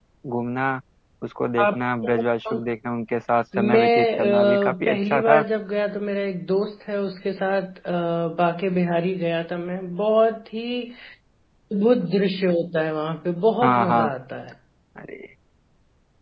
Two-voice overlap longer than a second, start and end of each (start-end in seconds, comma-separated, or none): 3.6-5.4